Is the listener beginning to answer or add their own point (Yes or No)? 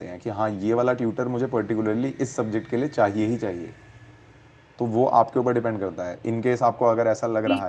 Yes